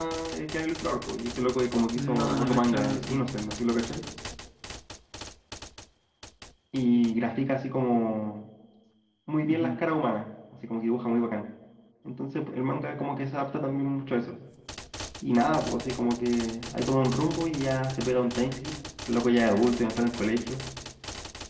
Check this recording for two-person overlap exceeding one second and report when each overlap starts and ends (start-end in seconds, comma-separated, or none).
2.0-3.2